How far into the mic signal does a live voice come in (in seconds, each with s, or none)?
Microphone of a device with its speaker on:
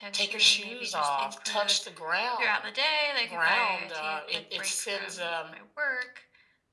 none